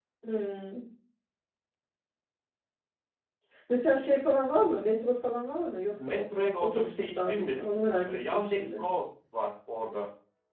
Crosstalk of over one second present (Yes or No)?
Yes